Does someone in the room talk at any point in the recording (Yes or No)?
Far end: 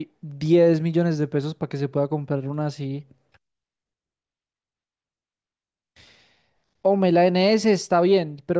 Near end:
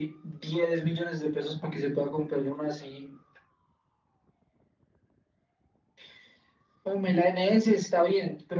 No